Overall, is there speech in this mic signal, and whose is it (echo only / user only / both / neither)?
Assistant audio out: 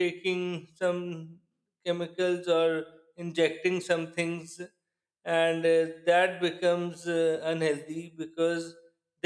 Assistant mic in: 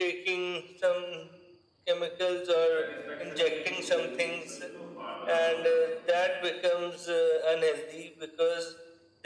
both